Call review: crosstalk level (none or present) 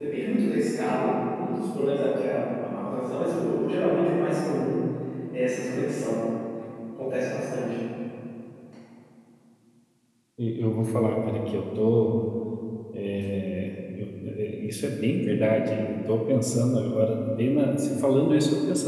none